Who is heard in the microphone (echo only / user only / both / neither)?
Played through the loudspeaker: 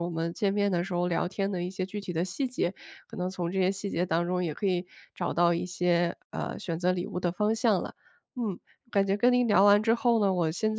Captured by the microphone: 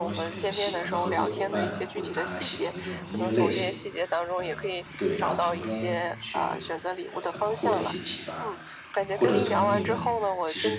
both